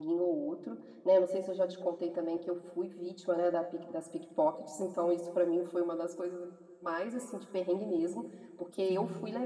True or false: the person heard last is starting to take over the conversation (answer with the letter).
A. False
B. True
A